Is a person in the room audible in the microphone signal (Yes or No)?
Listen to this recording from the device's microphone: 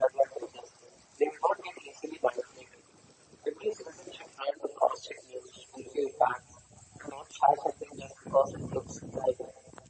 No